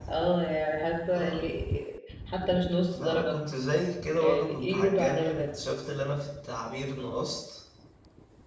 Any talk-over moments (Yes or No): Yes